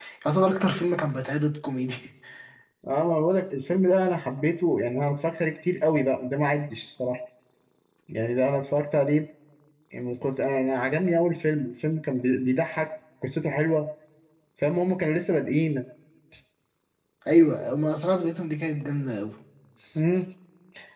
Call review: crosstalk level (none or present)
none